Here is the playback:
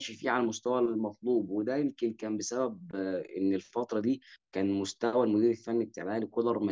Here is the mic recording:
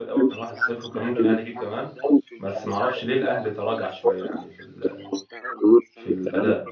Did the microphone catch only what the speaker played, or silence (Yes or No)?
No